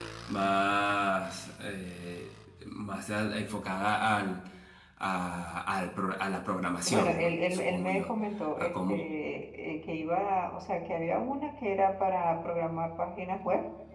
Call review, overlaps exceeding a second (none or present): present